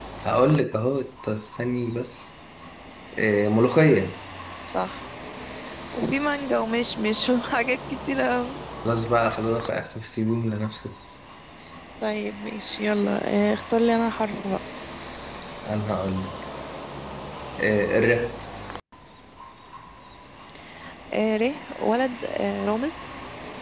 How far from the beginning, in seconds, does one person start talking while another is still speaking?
none

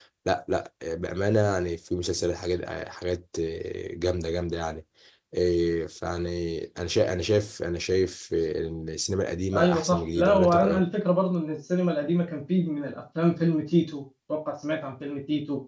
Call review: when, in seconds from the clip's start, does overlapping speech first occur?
9.5 s

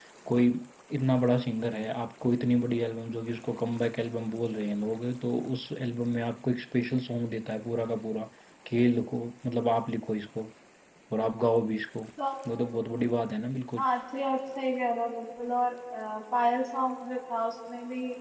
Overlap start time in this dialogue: none

